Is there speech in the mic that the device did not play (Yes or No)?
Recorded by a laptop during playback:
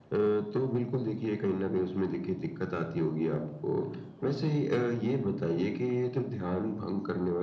No